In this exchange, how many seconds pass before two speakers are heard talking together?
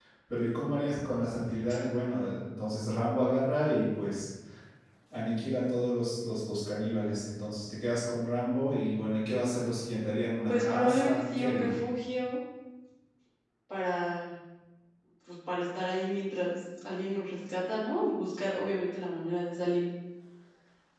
10.5 s

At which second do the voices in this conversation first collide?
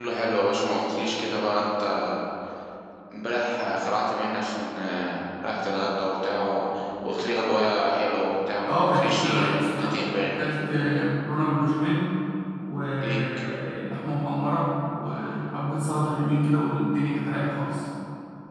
8.7 s

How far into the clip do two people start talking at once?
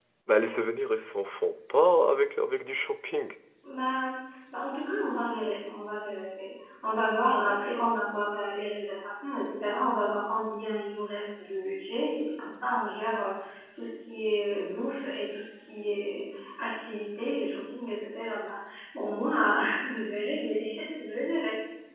none

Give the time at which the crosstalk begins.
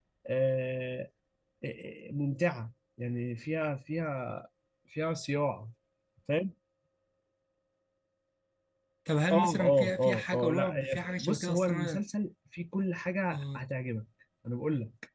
9.3 s

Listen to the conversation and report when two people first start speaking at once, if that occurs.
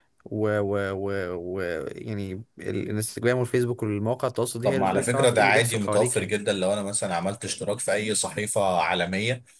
4.6 s

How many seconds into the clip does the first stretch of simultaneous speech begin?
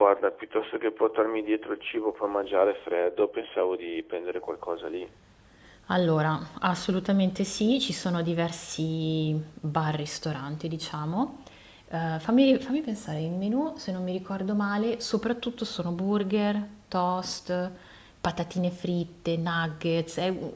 none

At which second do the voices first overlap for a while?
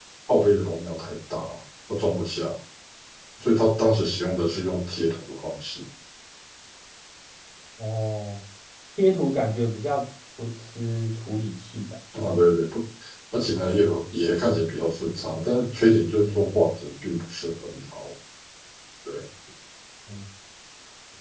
none

